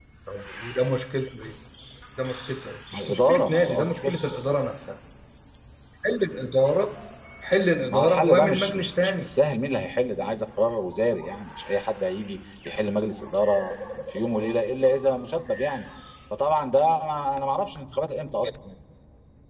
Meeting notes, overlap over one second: present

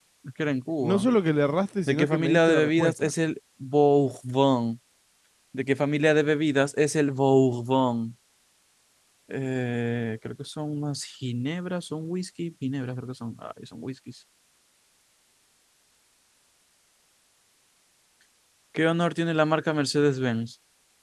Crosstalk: present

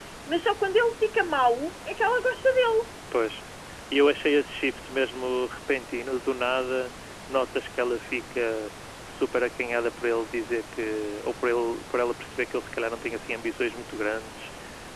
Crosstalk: none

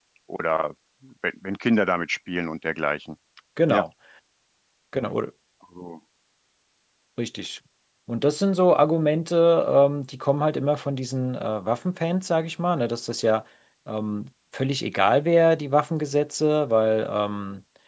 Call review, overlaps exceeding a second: none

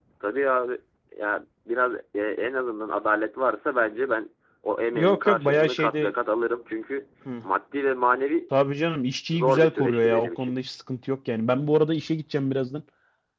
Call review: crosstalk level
present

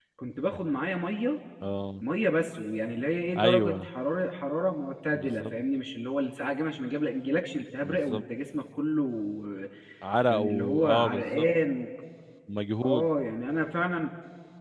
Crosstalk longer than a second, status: present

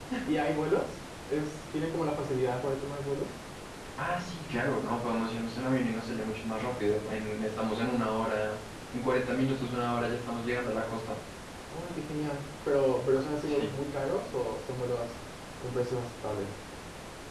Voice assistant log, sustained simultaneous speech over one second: none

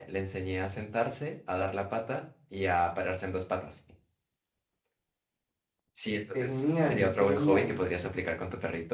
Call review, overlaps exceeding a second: present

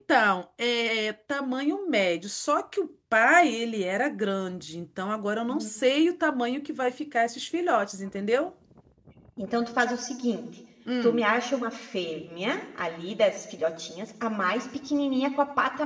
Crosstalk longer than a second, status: none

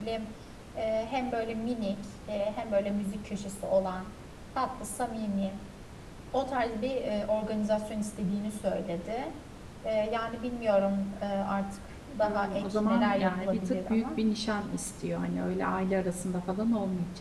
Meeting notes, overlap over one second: present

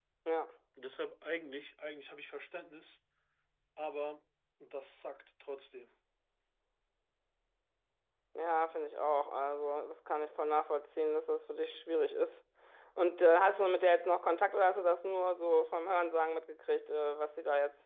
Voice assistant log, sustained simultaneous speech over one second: none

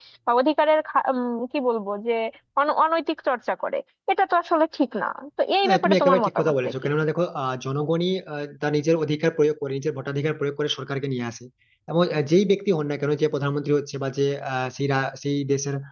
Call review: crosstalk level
present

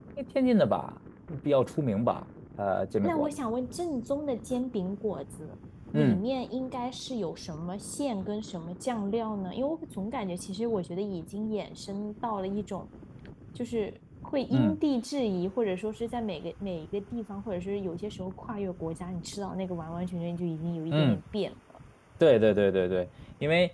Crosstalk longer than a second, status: none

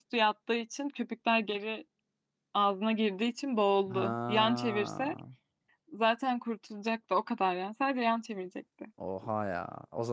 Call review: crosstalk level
present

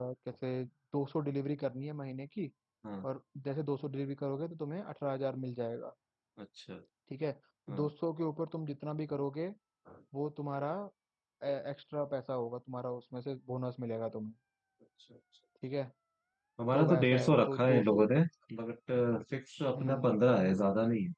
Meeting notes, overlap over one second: present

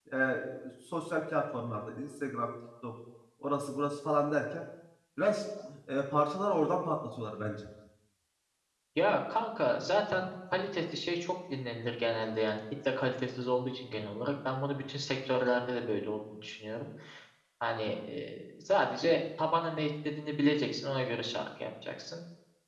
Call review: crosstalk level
none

